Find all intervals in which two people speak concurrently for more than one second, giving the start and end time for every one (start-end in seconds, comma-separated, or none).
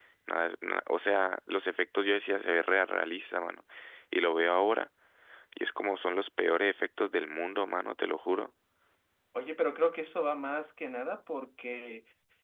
none